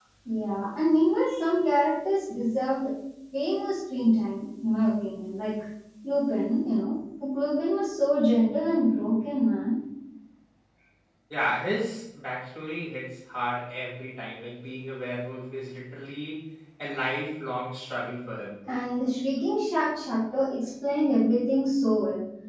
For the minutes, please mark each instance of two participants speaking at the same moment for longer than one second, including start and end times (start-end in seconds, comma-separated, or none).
none